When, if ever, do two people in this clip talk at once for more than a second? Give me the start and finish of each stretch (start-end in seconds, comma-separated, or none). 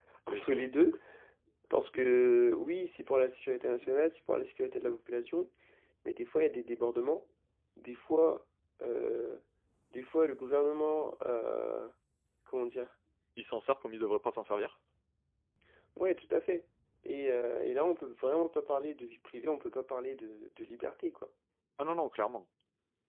none